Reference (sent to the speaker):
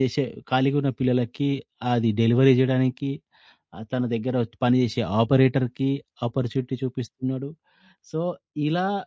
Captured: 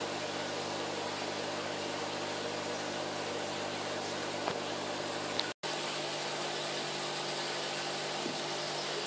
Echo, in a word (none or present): none